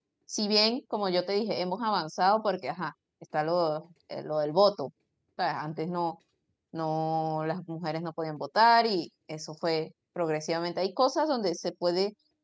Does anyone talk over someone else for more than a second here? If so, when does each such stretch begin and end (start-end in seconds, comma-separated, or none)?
none